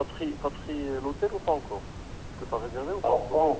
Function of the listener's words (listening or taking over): taking over